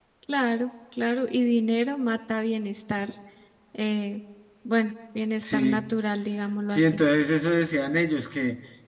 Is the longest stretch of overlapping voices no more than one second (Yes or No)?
Yes